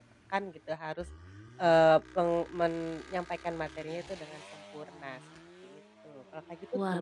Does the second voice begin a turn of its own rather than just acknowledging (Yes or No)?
Yes